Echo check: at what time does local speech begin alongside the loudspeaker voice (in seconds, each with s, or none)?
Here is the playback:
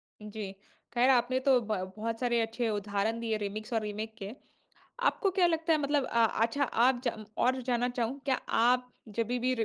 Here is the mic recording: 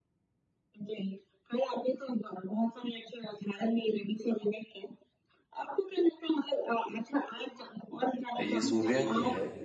8.4 s